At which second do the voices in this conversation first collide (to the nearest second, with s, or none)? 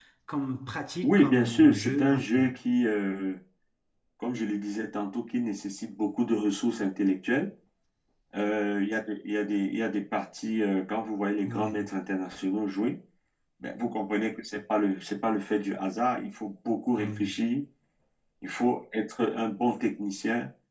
1 s